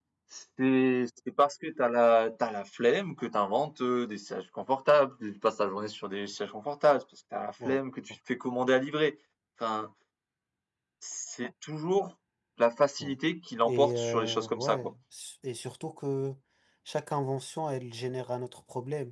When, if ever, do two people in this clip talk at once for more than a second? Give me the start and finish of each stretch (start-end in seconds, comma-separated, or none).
13.6-14.9